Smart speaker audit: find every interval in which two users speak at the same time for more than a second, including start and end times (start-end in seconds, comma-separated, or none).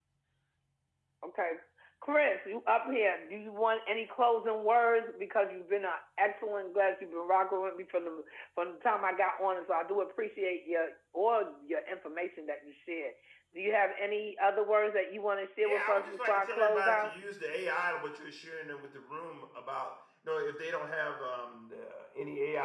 15.6-17.1